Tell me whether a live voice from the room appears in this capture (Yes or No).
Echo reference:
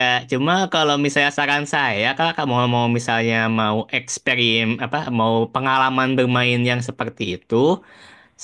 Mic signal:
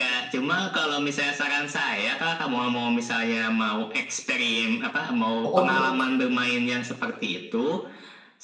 Yes